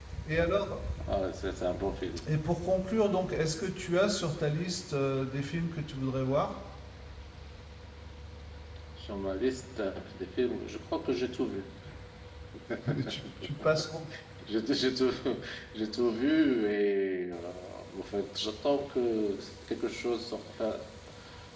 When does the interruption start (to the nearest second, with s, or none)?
none